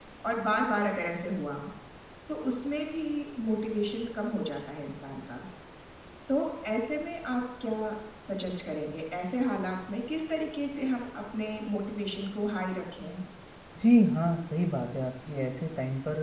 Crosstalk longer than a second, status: none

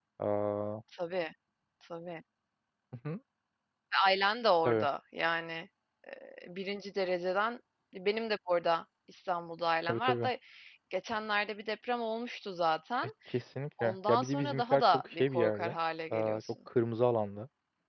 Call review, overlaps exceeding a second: present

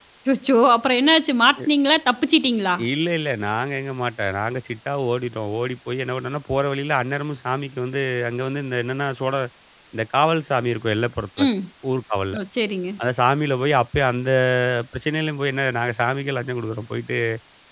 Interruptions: none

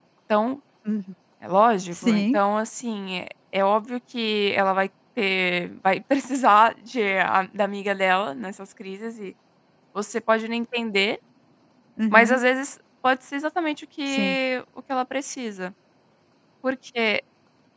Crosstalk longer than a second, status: none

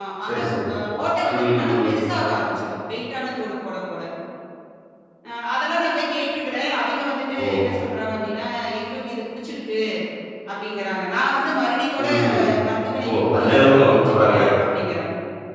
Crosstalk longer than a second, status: present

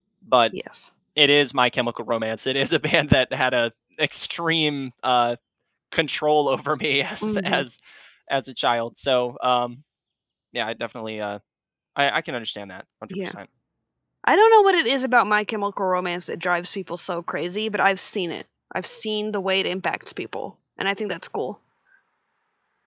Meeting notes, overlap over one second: none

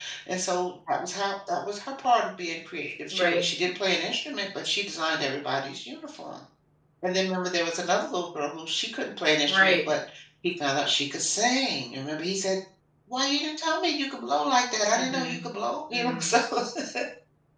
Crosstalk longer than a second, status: none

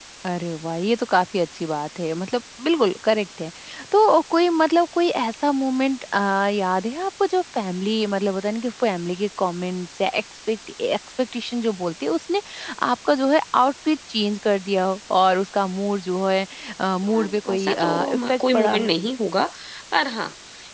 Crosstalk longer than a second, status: present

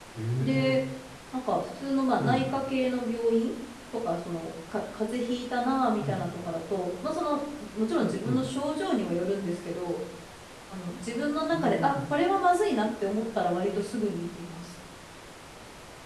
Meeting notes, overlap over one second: none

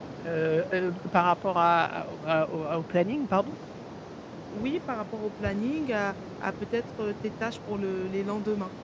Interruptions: none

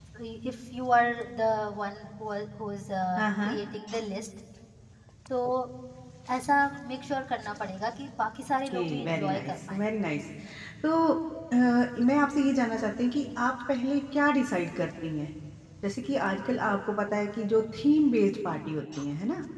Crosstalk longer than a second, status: present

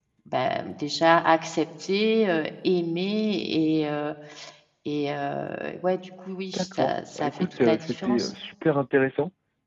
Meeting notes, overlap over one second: present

